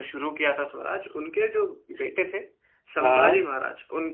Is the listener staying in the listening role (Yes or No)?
Yes